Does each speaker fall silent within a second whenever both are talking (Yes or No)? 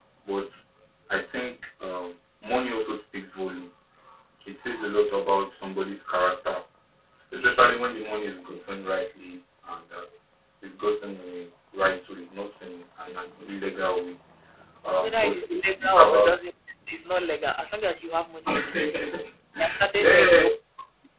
No